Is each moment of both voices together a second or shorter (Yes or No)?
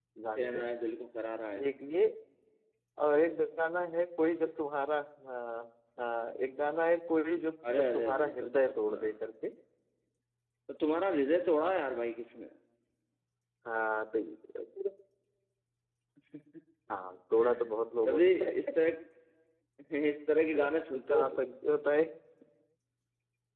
No